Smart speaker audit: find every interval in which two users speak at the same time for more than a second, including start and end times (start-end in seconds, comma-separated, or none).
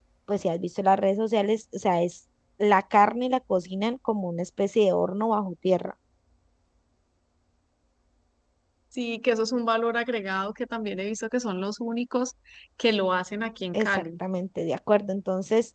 none